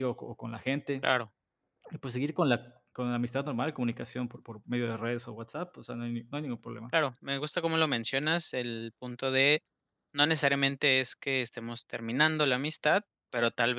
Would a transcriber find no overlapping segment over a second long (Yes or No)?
Yes